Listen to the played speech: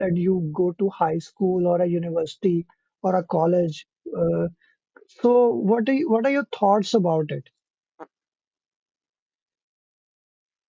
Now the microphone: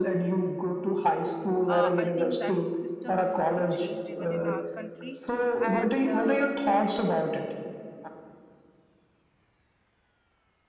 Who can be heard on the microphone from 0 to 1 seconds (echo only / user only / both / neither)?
echo only